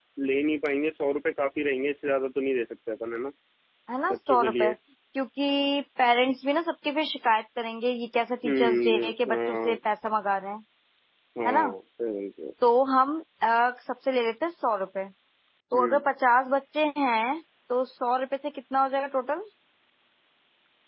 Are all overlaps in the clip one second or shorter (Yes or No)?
No